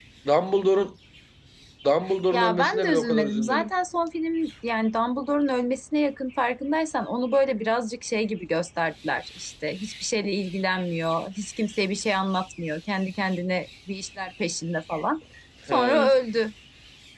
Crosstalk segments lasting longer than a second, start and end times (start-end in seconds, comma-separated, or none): 2.3-3.7